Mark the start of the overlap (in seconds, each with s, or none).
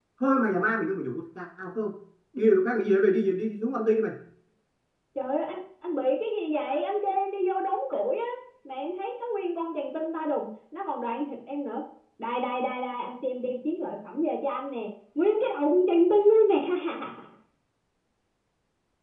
none